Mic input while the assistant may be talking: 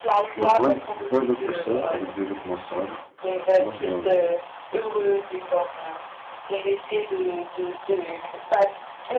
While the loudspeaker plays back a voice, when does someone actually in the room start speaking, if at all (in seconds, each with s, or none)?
0.4 s